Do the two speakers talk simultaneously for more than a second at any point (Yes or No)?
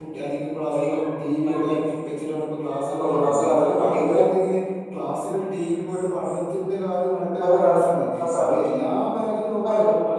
Yes